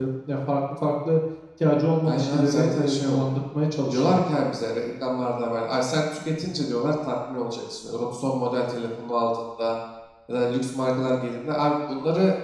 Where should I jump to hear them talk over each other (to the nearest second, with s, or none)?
2 s